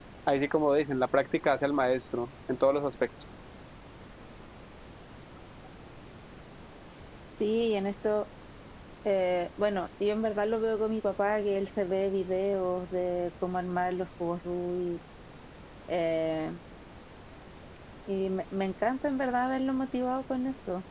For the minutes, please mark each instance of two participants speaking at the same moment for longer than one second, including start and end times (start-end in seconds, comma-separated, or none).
none